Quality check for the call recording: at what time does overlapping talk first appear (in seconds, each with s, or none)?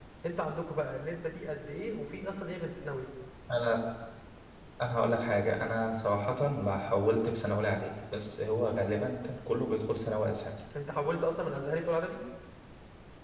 none